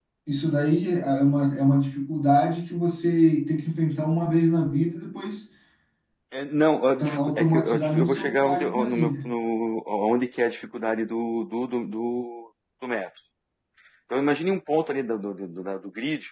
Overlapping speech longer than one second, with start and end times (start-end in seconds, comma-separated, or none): 7.0-9.3